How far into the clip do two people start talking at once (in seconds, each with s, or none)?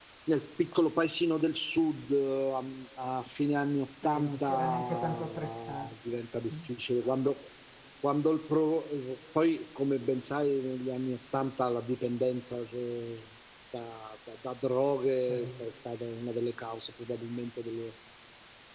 4.2 s